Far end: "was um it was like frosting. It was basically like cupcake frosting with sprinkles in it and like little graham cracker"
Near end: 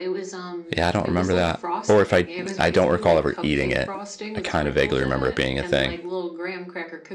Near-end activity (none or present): present